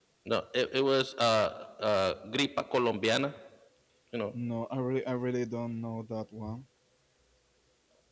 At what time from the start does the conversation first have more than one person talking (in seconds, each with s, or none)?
none